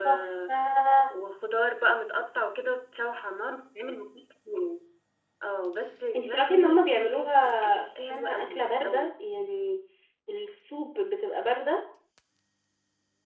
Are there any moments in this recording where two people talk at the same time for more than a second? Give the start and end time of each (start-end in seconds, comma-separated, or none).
6.2-9.1